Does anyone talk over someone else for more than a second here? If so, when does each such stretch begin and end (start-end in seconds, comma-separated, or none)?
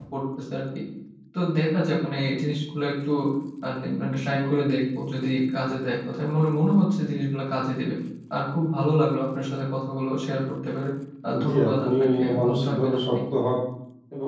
11.3-13.2